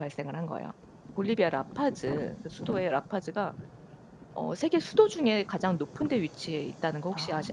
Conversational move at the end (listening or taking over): taking over